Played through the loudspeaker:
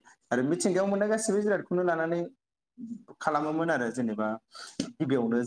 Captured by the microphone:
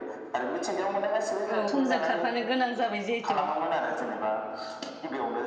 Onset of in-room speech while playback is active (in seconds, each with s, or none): 1.5 s